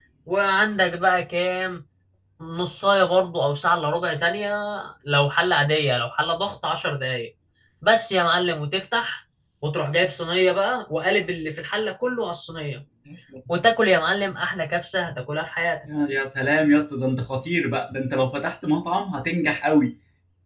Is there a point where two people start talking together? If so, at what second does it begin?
none

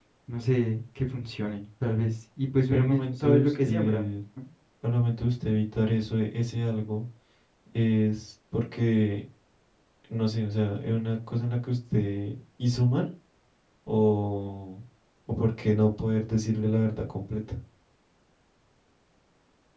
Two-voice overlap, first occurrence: 2.7 s

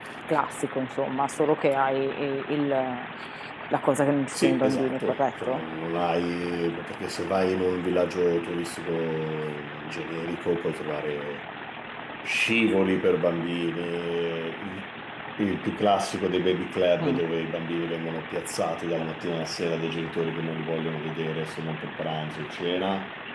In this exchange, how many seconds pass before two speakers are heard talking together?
4.3 s

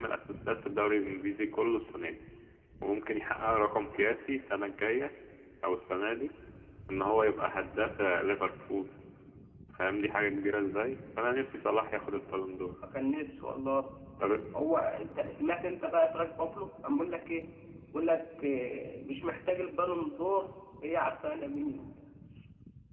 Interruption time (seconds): none

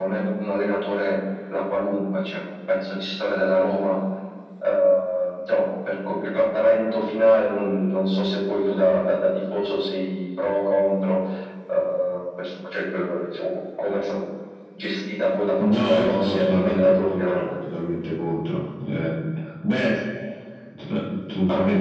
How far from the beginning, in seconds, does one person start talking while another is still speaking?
15.6 s

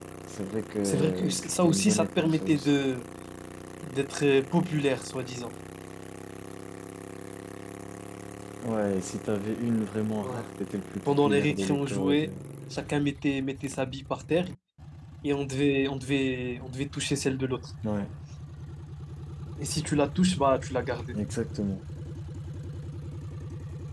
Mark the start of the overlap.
0.8 s

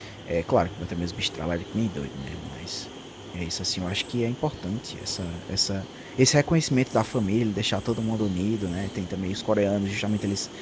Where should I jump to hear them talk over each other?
none

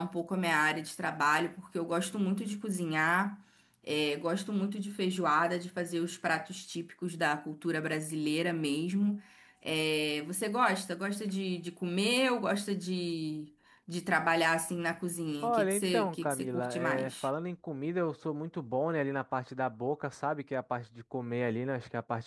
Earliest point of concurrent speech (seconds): 15.4 s

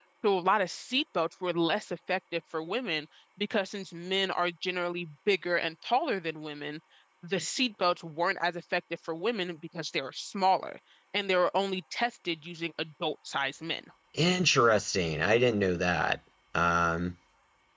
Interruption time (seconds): none

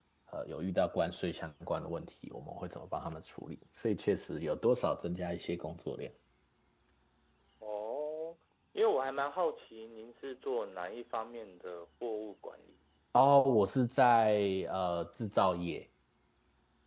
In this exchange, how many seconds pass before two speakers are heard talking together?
none

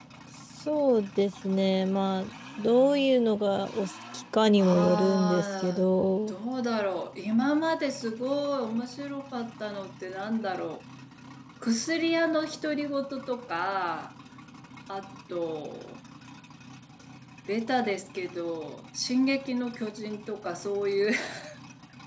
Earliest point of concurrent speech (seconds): 4.6 s

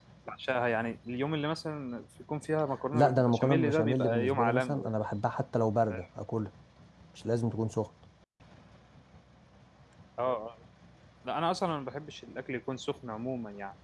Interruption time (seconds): 2.9 s

